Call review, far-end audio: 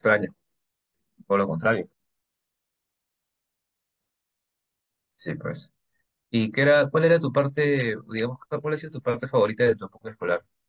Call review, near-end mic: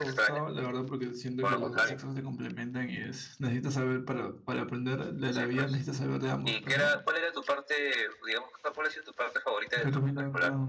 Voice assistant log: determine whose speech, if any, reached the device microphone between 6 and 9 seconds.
both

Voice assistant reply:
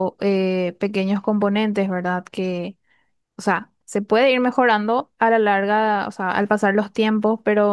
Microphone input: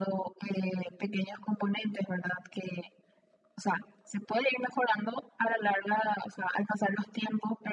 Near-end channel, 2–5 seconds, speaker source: echo only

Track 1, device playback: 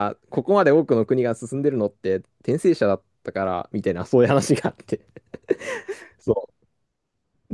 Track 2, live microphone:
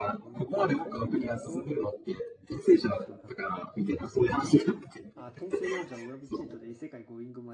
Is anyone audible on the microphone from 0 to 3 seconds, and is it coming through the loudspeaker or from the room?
both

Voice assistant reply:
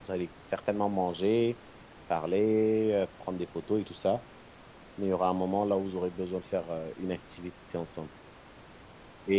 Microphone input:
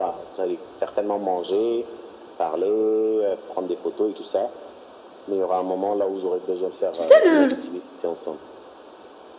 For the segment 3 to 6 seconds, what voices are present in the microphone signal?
echo only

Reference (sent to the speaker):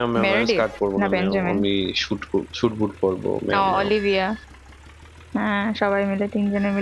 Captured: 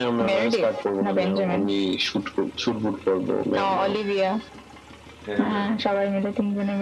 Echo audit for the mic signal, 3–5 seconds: echo only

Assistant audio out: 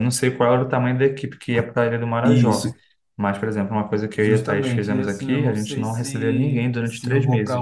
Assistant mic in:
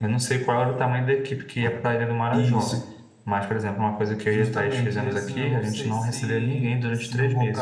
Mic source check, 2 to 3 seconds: echo only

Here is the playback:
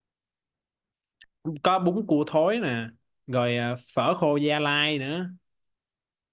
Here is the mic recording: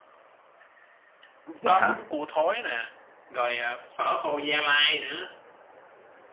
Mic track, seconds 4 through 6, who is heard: echo only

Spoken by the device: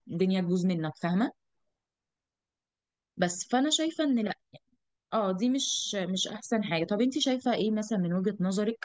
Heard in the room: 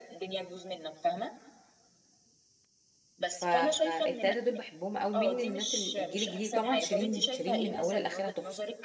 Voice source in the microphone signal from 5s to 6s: both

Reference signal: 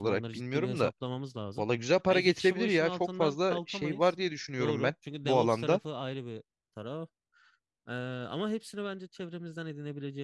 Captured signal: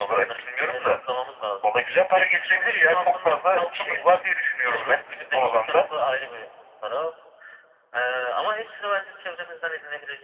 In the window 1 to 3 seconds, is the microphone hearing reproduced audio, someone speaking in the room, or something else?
echo only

